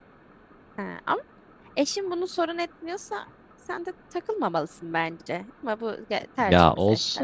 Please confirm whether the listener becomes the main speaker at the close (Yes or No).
Yes